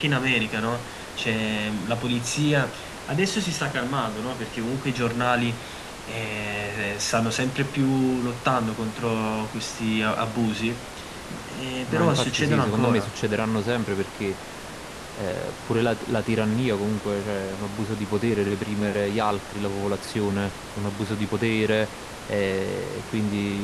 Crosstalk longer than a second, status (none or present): present